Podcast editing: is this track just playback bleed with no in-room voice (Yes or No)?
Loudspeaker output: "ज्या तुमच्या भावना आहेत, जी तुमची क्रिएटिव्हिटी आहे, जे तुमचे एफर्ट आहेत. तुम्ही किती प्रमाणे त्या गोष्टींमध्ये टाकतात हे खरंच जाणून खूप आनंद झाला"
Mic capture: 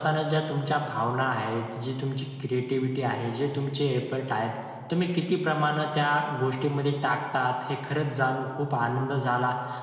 Yes